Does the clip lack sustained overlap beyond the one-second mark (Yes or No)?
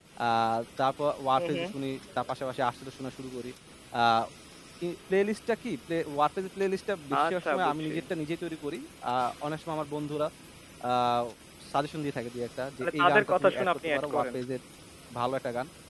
No